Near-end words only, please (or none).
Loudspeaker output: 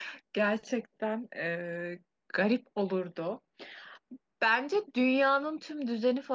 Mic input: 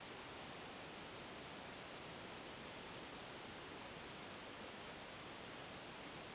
none